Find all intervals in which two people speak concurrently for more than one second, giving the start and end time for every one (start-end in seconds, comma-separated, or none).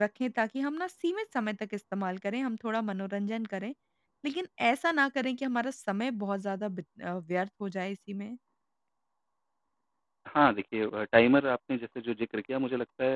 none